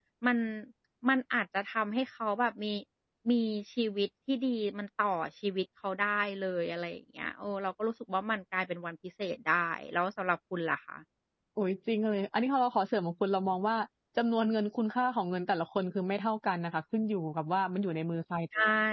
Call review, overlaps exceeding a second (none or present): none